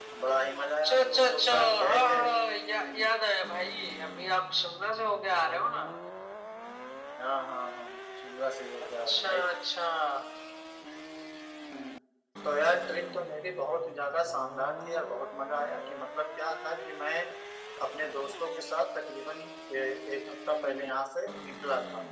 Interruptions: present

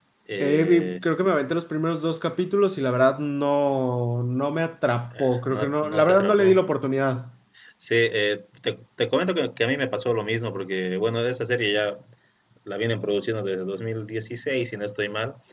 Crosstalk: present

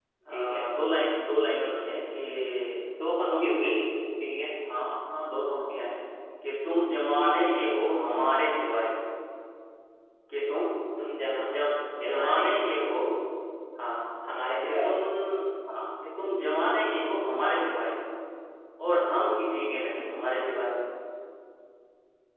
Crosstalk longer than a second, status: none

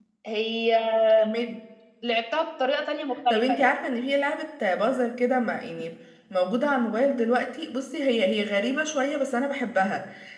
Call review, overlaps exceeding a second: none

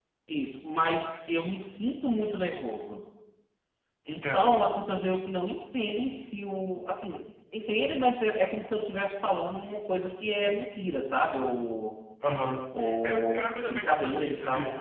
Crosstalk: present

